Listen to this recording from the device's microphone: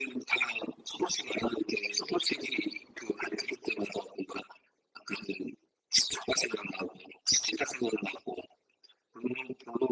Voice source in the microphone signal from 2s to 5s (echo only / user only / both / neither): echo only